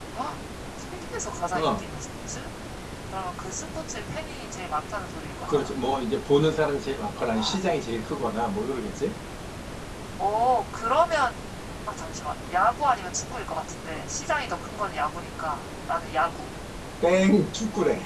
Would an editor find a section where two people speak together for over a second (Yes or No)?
No